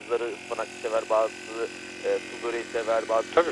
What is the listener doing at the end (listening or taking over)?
listening